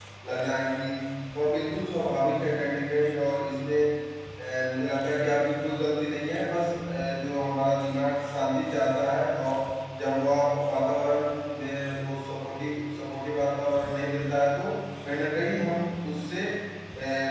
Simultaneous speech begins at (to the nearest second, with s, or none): none